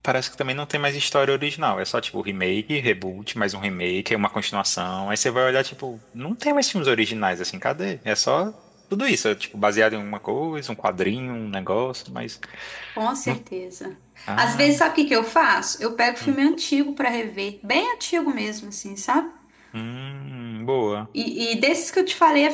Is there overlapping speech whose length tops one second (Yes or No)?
No